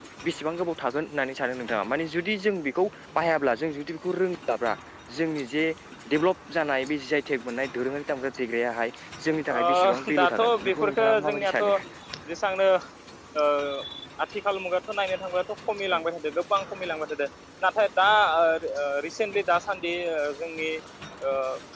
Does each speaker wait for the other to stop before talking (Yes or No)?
No